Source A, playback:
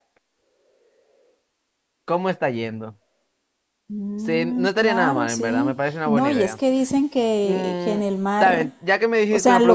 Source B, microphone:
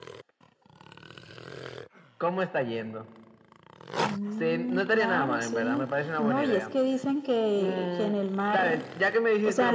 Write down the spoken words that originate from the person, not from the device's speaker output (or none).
none